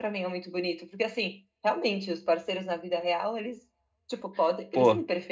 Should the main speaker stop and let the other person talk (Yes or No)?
No